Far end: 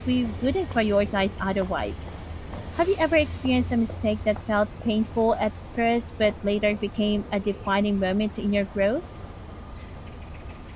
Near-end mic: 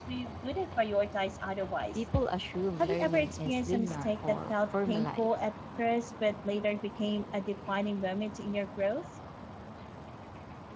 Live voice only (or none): people assume learning is linear or formulaic.